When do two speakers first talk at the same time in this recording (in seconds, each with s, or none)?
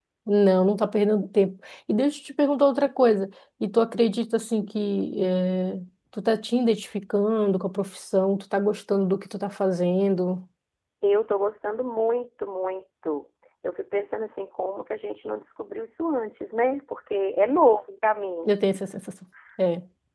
none